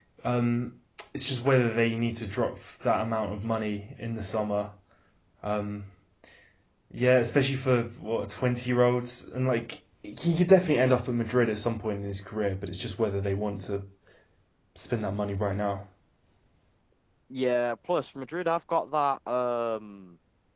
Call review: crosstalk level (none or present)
none